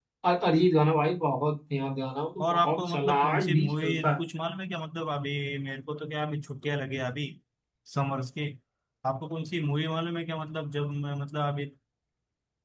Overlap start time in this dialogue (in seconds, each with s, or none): 2.4 s